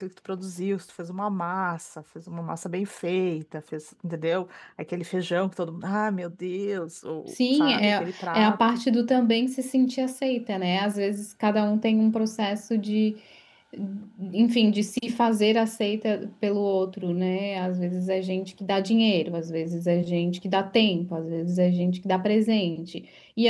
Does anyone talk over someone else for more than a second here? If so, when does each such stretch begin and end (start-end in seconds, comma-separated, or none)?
7.3-8.8